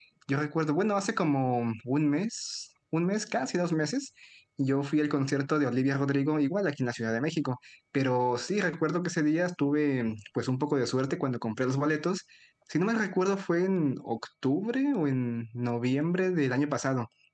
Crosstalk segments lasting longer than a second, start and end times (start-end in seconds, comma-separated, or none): none